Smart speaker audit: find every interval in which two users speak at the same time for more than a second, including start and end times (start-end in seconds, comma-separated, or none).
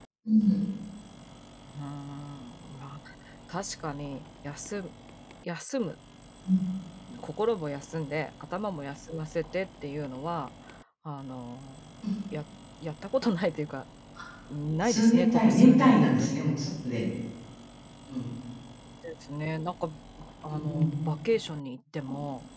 14.8-16.4